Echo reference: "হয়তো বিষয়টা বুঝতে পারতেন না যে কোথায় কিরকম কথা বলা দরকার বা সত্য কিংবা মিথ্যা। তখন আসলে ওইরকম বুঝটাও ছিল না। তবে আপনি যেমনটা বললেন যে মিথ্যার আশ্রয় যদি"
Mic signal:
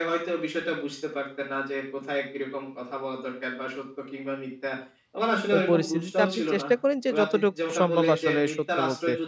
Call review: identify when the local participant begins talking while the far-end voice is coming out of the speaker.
5.5 s

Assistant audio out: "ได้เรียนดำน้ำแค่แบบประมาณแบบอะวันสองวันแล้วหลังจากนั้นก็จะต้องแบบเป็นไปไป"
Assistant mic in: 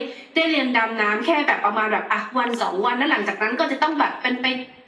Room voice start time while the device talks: none

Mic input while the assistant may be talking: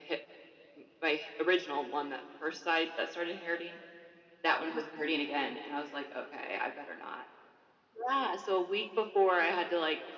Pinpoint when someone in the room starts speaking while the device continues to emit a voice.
none

